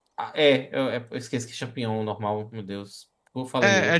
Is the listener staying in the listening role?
No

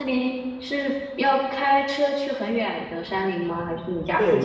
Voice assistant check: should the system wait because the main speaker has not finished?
No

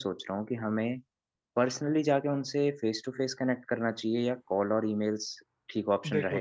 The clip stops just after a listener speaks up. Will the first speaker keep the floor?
No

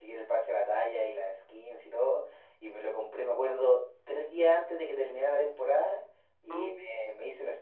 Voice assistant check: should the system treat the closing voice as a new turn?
No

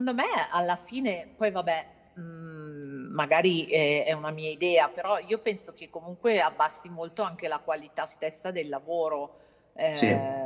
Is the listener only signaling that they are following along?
No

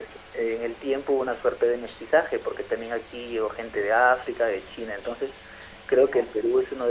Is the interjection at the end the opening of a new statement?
No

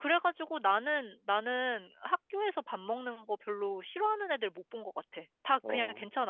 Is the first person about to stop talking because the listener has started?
No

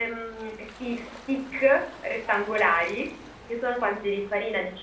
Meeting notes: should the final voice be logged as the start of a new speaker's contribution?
No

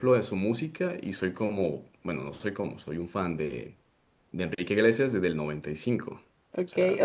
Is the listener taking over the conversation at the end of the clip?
Yes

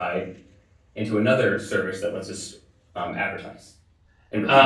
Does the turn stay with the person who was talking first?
No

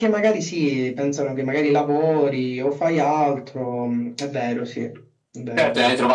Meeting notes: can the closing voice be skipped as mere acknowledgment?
No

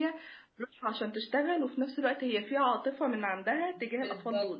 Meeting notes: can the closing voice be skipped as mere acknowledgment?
No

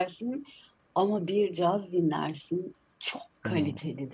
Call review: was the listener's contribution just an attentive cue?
No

